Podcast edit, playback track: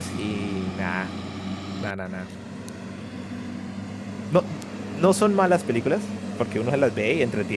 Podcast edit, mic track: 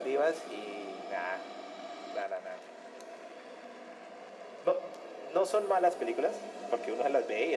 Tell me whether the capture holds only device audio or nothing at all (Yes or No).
Yes